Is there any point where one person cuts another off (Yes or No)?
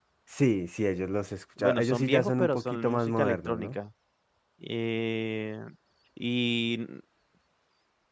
Yes